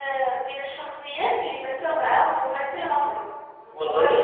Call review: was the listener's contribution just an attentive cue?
Yes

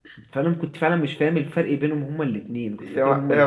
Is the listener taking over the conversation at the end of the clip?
Yes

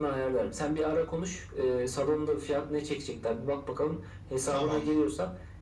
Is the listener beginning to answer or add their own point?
No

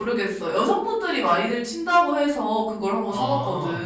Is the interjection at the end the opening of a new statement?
Yes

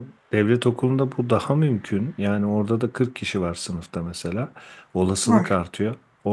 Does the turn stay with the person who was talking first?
Yes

